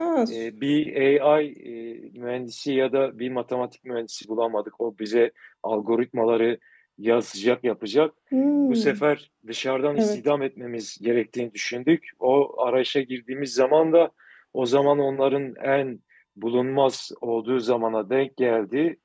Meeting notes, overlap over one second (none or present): none